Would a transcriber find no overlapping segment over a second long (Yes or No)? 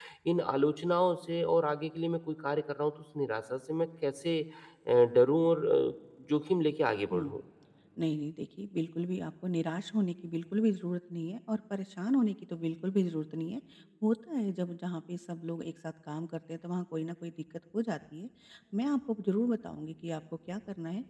Yes